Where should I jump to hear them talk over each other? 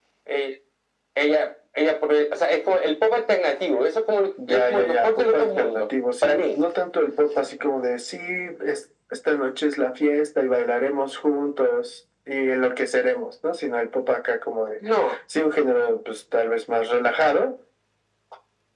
4.4 s

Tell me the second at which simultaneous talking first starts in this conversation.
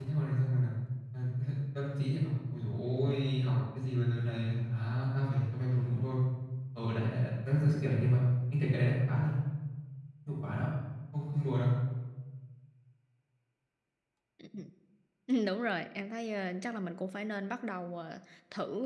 none

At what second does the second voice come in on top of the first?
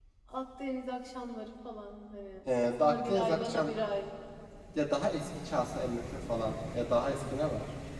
2.5 s

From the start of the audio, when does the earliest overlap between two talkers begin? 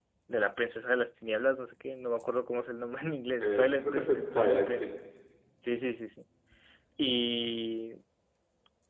3.4 s

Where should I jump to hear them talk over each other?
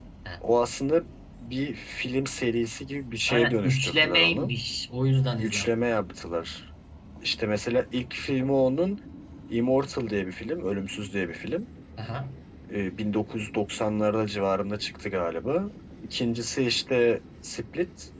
3.3 s

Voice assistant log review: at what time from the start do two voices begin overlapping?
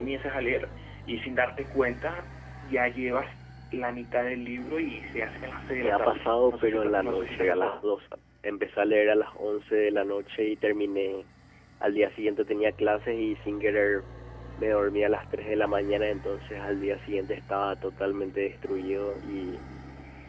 5.8 s

